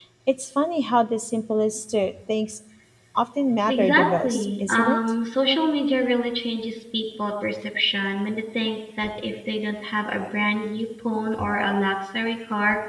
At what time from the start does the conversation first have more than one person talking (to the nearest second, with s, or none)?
4 s